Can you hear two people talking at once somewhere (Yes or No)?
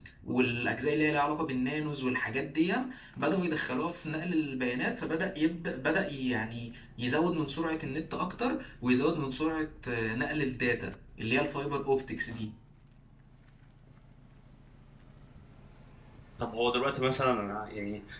No